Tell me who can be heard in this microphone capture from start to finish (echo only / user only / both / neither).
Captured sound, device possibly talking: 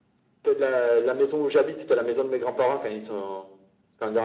echo only